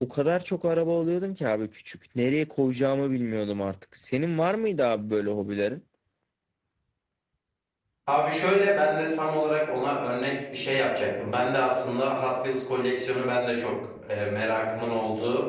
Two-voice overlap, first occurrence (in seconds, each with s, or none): none